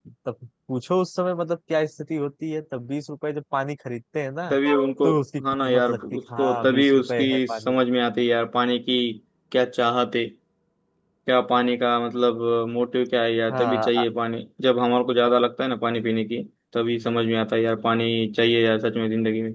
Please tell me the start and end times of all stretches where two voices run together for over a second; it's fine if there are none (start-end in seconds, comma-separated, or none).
5.6-7.8